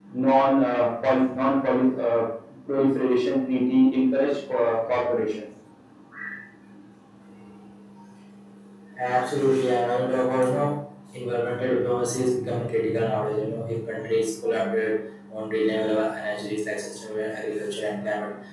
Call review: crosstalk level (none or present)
none